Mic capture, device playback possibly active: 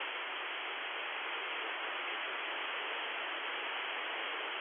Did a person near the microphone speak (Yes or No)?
No